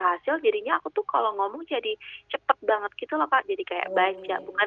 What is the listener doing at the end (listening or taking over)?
listening